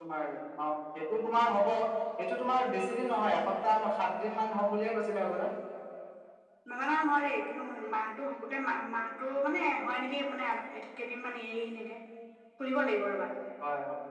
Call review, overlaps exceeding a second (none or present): none